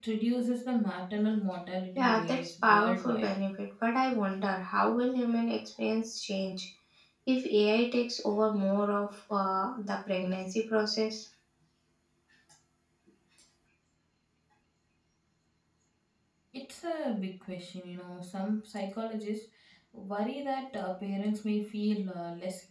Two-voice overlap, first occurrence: 2.0 s

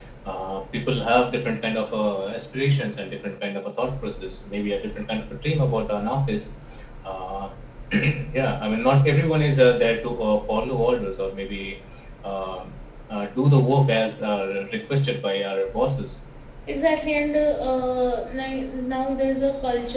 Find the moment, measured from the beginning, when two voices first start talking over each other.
none

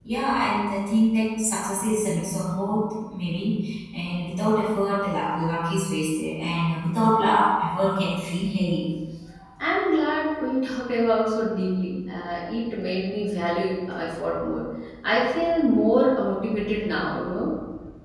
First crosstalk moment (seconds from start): none

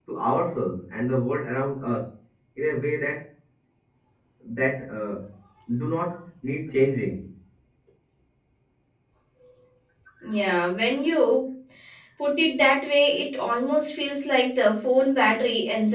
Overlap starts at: none

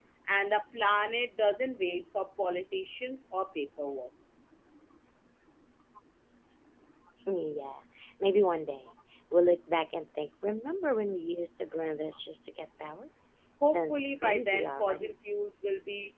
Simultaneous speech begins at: 13.6 s

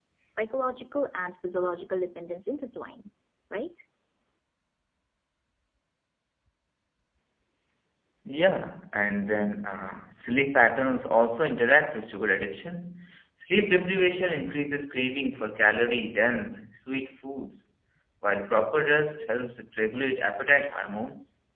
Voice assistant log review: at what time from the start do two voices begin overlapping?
none

